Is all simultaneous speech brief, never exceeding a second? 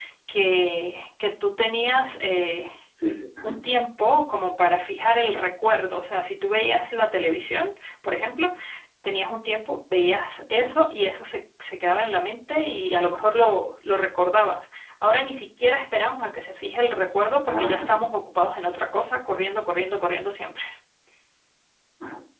Yes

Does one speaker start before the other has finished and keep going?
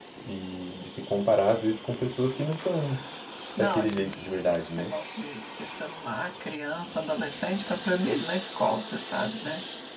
Yes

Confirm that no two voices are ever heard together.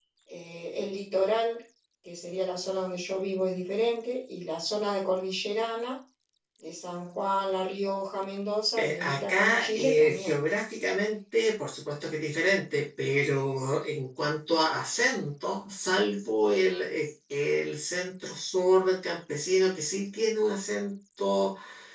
No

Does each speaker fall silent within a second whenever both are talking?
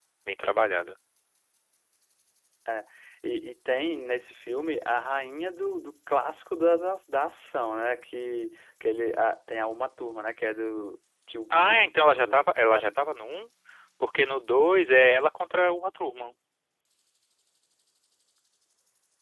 No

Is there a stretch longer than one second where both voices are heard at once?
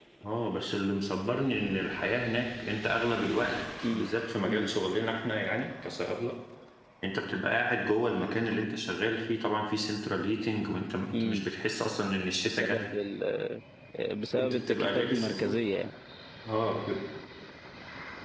Yes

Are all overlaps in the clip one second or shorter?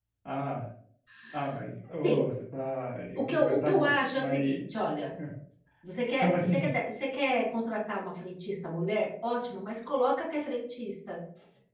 No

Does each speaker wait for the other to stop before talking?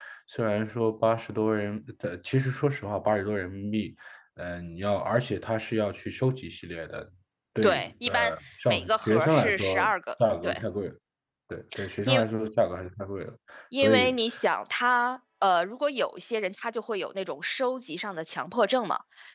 No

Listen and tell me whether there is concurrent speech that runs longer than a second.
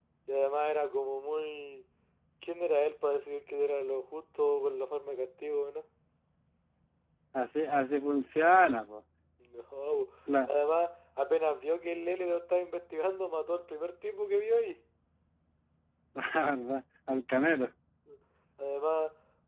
No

